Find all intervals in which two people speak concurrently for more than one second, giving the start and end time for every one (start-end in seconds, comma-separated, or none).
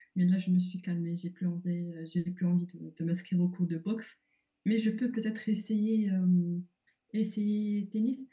none